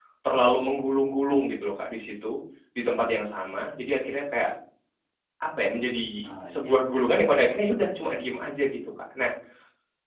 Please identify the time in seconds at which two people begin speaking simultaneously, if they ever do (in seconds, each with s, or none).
6.5 s